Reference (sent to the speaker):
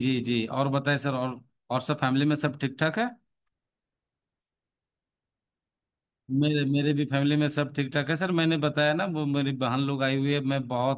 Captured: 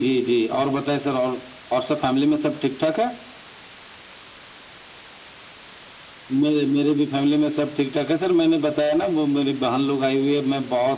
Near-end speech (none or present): none